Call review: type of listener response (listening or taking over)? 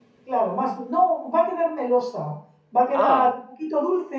listening